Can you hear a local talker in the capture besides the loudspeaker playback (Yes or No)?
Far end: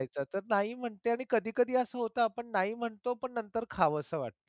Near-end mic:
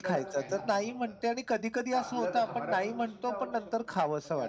Yes